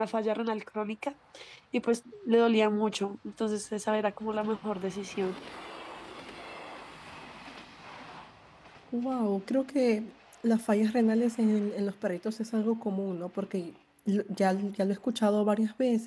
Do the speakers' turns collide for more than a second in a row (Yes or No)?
No